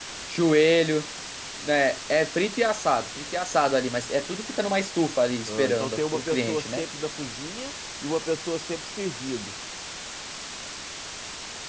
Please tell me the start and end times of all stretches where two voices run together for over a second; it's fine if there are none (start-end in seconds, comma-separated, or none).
5.5-6.8